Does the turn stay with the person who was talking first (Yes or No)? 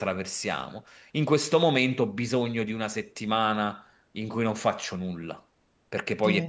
No